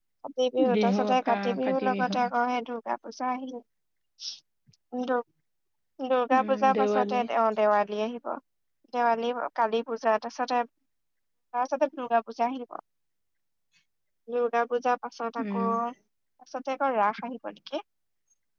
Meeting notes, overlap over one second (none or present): present